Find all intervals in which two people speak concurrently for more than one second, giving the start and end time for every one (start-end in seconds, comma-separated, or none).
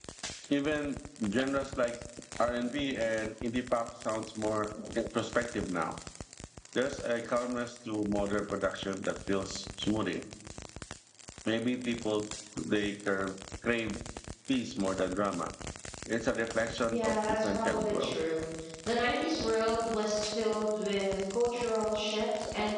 16.9-18.2